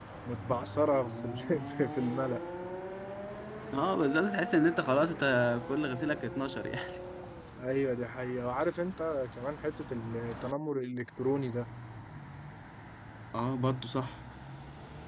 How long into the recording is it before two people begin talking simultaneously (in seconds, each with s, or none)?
none